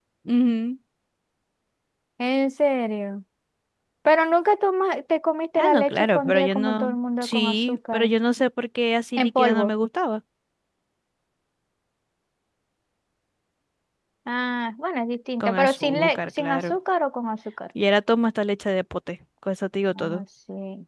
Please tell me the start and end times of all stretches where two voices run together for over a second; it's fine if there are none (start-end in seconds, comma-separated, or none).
5.6-8.1, 15.4-16.8